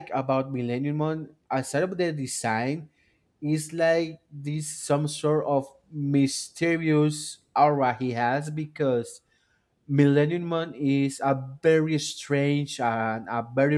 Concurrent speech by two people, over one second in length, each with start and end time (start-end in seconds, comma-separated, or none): none